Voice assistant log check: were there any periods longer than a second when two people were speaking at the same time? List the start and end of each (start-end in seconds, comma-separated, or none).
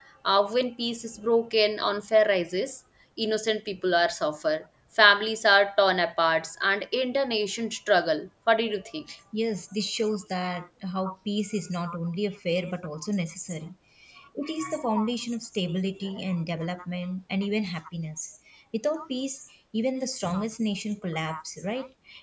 none